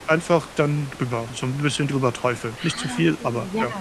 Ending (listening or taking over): taking over